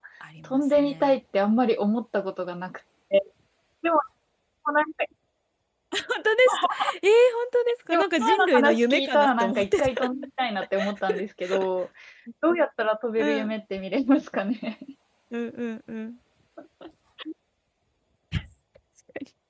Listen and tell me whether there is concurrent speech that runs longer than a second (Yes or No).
Yes